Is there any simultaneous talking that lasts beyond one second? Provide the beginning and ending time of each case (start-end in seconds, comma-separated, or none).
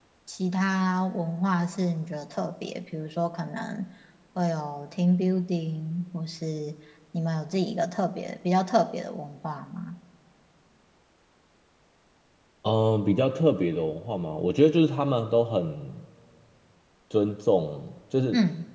none